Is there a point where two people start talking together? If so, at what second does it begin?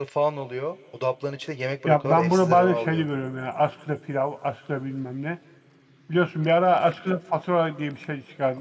1.9 s

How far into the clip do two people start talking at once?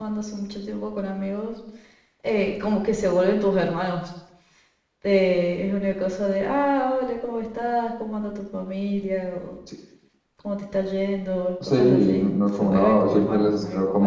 11.6 s

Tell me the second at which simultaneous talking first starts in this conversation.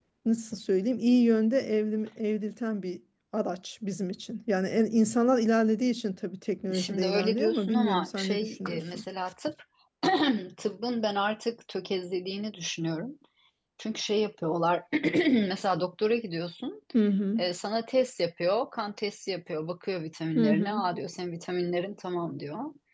6.7 s

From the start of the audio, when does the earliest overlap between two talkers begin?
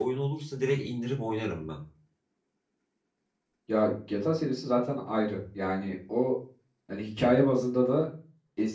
none

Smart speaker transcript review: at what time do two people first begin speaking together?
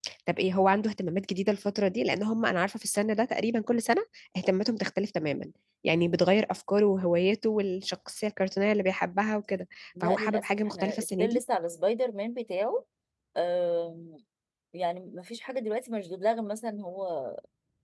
10.0 s

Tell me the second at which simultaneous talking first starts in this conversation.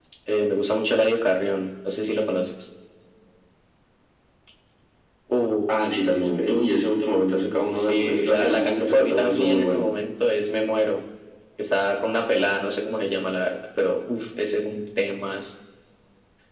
7.7 s

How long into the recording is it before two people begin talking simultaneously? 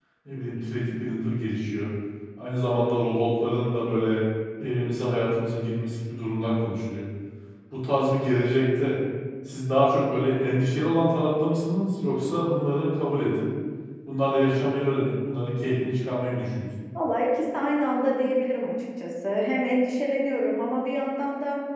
none

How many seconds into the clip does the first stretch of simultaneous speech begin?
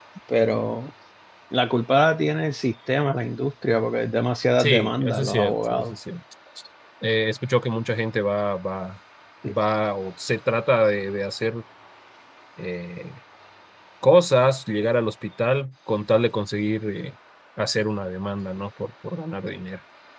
4.6 s

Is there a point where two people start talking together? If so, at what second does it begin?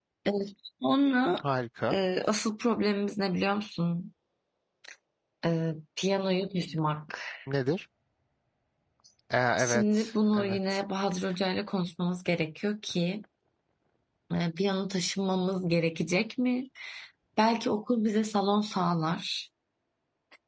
9.6 s

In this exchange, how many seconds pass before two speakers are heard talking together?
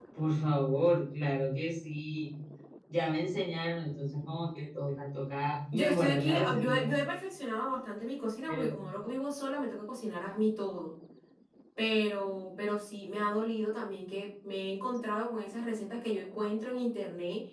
5.7 s

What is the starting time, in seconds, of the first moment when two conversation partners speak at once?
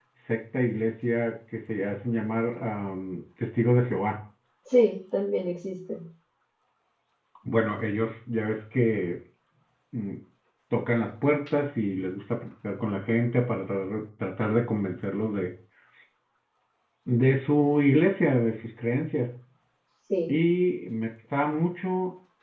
none

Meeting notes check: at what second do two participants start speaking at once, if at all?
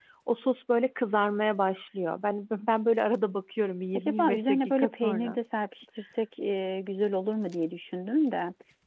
3.9 s

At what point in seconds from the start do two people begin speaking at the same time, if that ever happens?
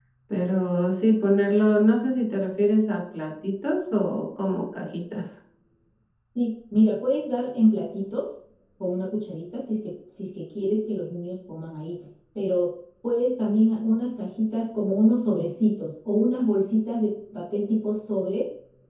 none

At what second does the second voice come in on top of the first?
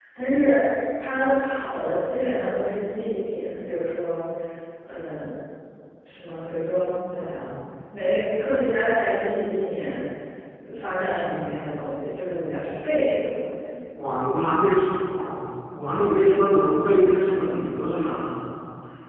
none

